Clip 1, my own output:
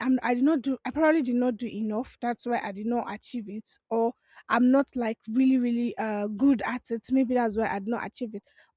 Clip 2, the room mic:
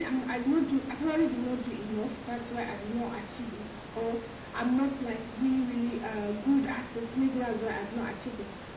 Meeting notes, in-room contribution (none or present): none